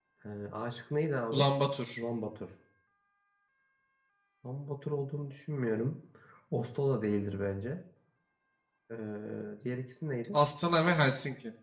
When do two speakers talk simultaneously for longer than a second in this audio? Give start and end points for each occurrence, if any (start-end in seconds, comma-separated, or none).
none